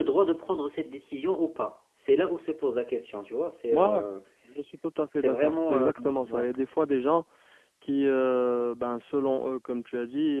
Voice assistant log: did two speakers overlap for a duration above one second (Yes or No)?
Yes